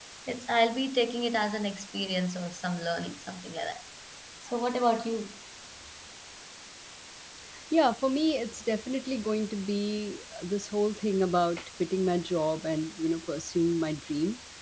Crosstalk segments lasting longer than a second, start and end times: none

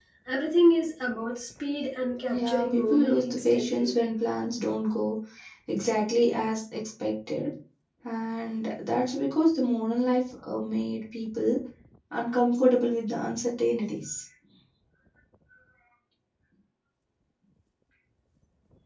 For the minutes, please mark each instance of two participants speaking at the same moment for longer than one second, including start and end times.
2.3-3.9

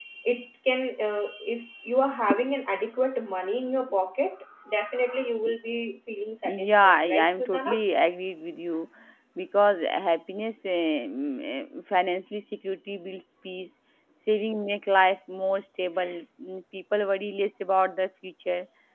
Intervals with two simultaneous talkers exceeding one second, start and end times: 6.5-7.7

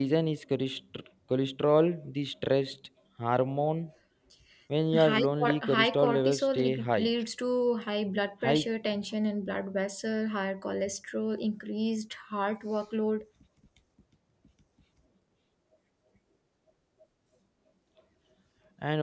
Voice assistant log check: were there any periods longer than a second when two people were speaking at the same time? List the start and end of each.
5.0-7.1

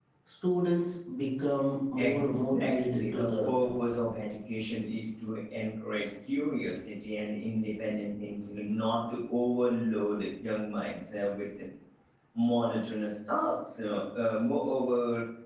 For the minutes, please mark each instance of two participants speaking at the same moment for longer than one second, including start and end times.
2.0-3.6

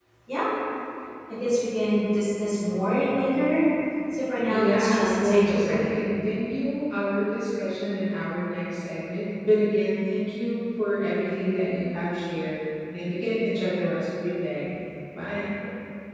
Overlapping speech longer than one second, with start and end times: 4.5-5.9

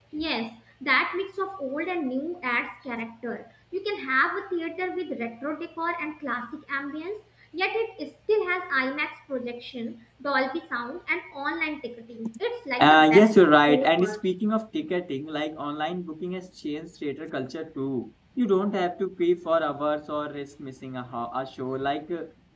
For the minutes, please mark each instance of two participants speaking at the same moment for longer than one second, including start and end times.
12.8-14.2

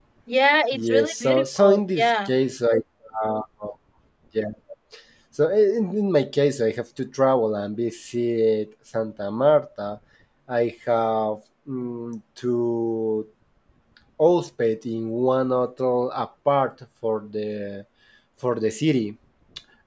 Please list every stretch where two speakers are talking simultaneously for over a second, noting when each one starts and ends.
0.7-2.3

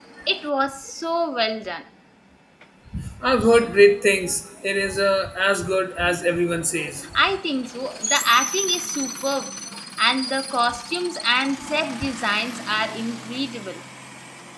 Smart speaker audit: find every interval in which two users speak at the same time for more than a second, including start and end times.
none

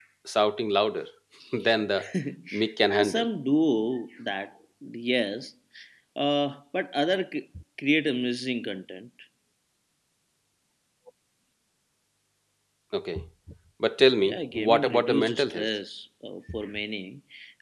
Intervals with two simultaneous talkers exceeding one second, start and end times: 14.2-15.7

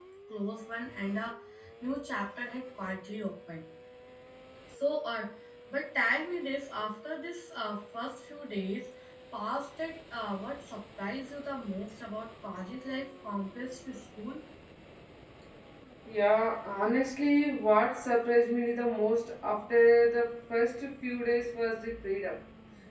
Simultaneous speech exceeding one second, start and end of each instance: none

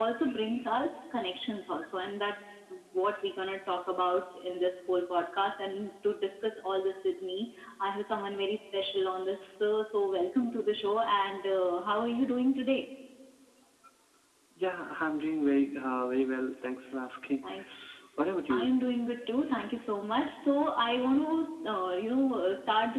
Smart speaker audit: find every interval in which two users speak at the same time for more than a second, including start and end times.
none

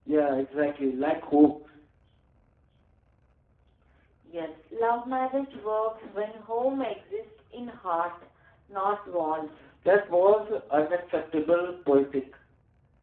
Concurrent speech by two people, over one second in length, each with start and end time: none

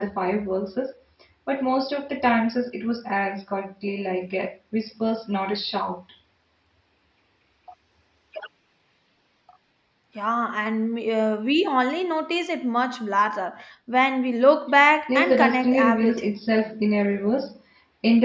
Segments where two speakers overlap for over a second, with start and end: 15.1-16.4

